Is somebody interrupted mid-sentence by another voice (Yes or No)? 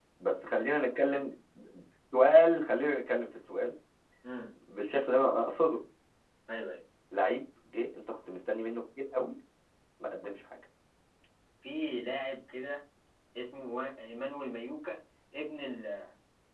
No